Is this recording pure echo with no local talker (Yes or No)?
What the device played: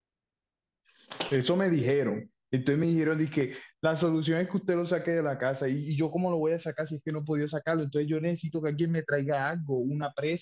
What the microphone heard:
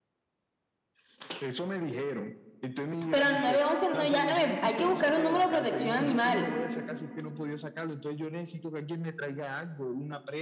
No